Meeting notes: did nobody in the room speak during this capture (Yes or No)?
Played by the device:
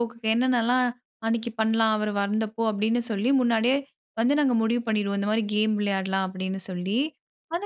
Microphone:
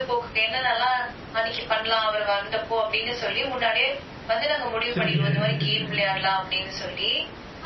No